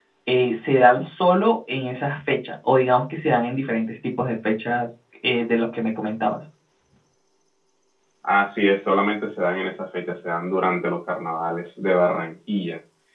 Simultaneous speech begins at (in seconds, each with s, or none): none